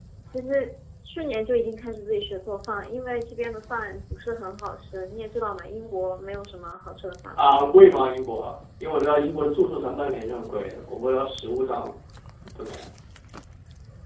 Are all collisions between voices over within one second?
Yes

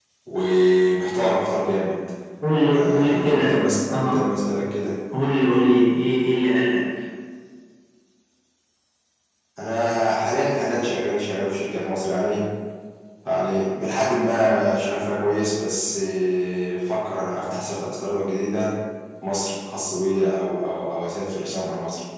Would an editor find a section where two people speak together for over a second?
Yes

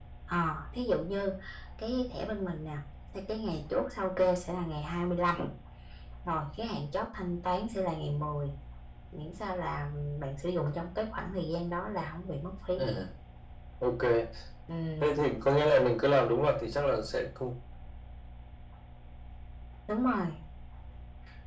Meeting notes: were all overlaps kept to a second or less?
Yes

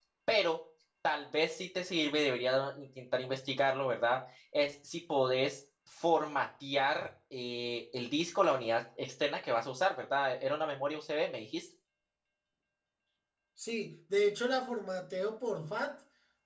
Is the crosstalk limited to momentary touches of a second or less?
Yes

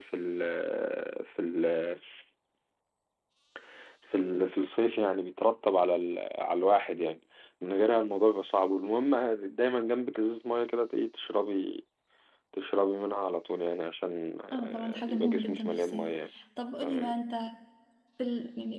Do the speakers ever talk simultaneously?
Yes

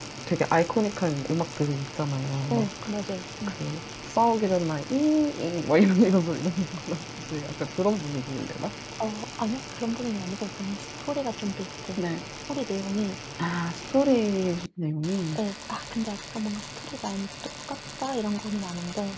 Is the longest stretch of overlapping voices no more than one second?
Yes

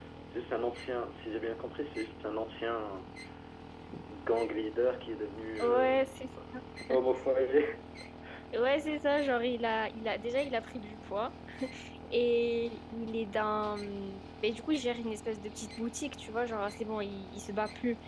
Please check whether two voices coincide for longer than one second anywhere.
No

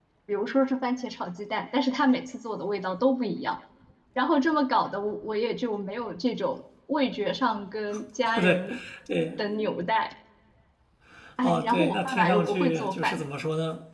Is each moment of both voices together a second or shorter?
No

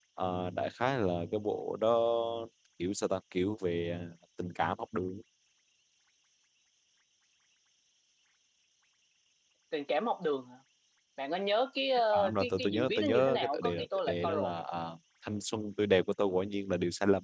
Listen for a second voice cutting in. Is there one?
Yes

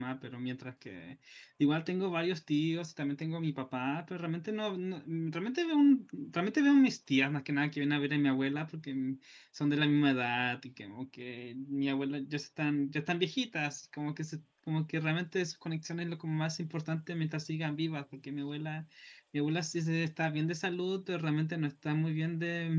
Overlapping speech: No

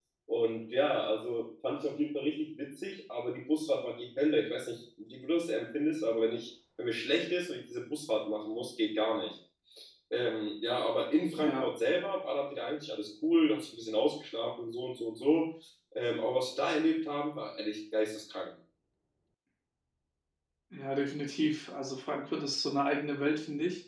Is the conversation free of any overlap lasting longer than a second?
Yes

